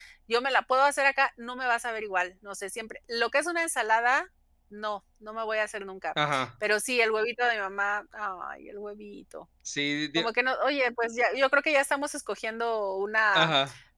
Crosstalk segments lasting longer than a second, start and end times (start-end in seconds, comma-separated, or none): none